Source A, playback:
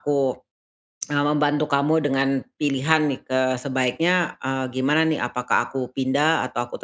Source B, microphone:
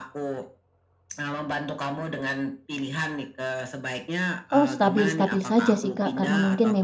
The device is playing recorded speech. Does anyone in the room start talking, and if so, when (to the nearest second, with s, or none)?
5 s